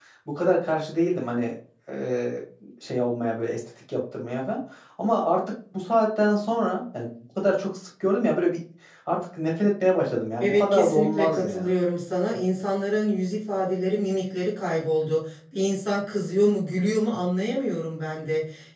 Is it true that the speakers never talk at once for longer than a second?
No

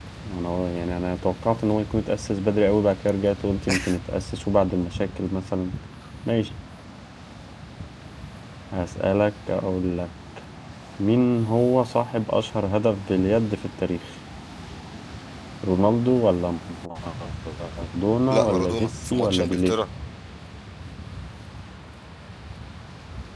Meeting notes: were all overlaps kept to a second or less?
No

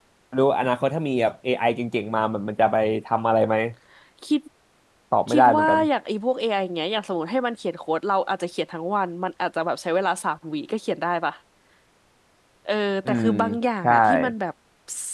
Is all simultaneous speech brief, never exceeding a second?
Yes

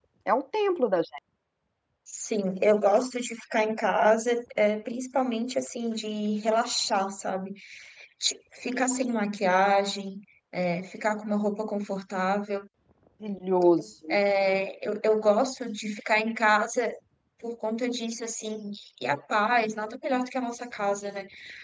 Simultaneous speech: No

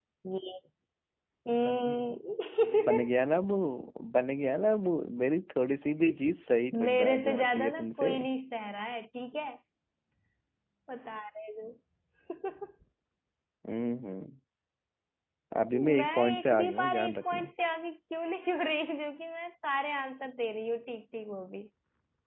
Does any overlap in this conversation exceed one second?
Yes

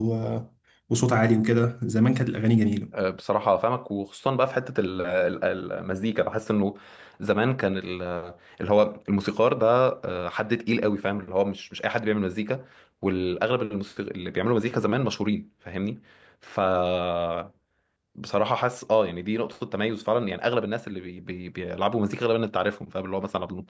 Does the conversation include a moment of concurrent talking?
No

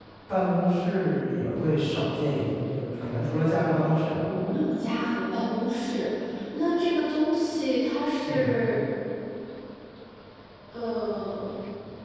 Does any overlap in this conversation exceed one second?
No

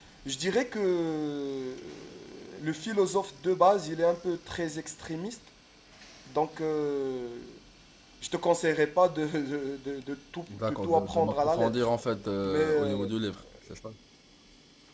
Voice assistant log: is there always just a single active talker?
No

